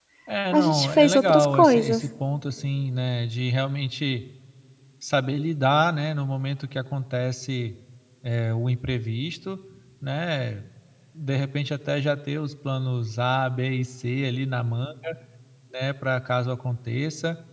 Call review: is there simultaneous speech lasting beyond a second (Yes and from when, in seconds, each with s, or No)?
Yes, from 0.5 s